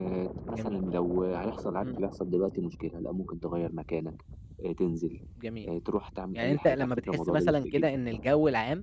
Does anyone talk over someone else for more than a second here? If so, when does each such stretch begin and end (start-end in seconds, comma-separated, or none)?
6.4-7.9